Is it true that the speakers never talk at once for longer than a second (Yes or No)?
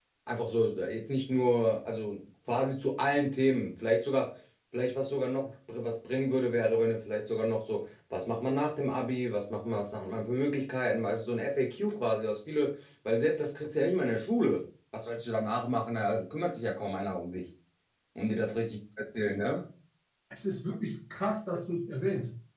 Yes